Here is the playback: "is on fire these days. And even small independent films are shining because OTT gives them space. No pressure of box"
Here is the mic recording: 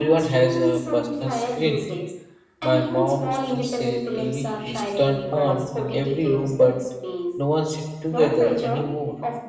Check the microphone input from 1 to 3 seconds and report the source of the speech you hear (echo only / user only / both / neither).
both